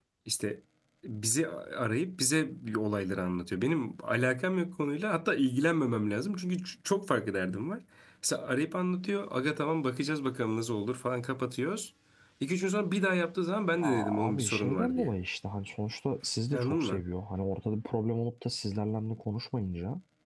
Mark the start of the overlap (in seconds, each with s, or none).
13.8 s